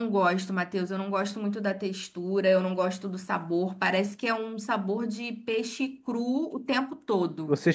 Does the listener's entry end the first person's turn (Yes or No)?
Yes